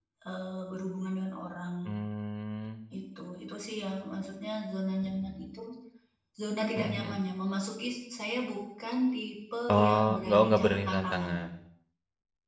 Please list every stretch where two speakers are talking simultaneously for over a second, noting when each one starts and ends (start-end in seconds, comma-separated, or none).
9.7-11.4